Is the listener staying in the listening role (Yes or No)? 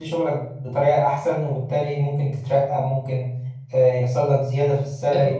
No